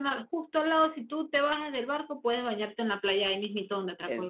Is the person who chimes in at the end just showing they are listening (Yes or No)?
No